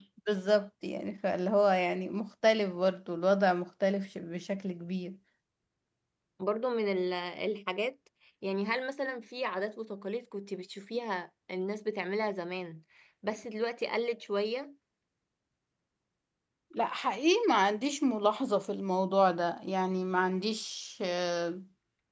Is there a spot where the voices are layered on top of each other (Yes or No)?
No